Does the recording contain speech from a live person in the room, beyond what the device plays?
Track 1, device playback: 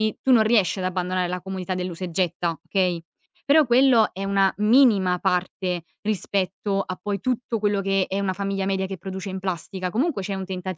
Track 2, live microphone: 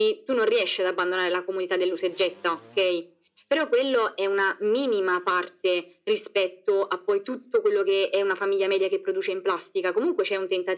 No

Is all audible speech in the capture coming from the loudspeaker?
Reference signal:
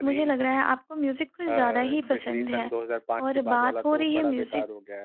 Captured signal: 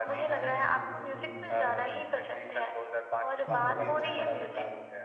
No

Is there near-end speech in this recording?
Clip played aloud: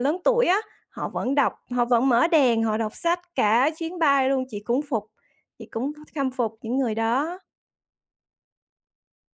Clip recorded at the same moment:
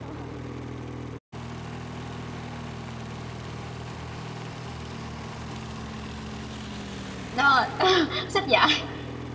Yes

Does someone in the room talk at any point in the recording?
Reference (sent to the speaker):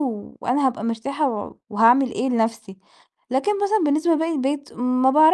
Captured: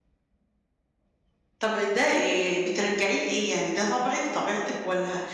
Yes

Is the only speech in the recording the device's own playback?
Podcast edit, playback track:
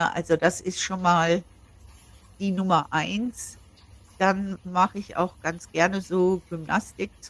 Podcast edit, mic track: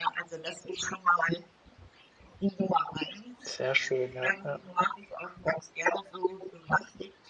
No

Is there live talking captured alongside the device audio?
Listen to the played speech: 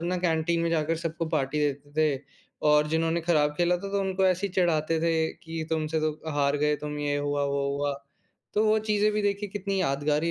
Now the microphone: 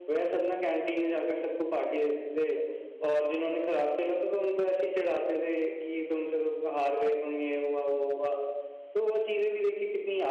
No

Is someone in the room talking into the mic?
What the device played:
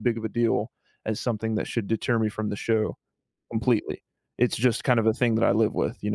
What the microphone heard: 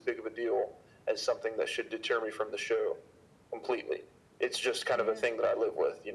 Yes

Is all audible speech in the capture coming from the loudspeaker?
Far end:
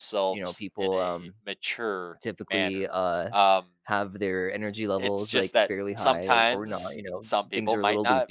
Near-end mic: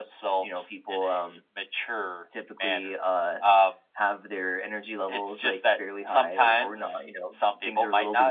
Yes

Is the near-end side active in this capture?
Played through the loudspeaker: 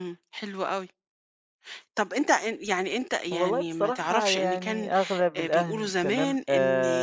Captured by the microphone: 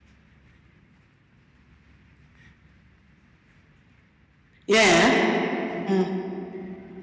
Yes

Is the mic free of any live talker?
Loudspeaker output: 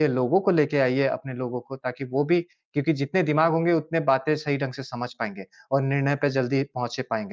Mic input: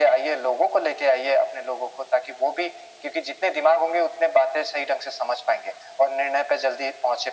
Yes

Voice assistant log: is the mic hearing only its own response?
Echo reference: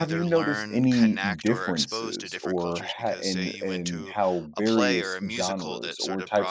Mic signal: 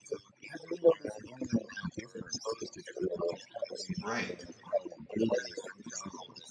No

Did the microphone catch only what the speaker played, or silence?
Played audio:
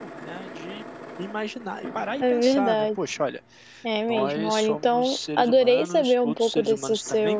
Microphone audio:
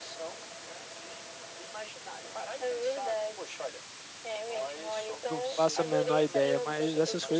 No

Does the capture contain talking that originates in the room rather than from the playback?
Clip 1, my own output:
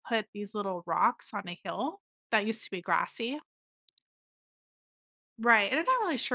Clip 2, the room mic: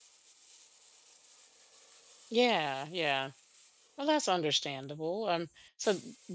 Yes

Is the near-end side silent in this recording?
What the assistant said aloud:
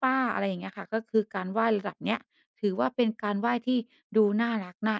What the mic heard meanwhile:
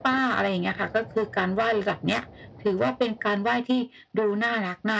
Yes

